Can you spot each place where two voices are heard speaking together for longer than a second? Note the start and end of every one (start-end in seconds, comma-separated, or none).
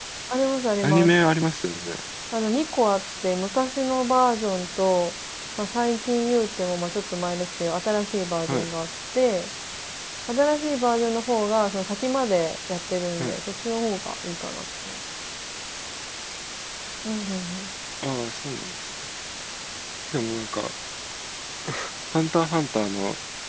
none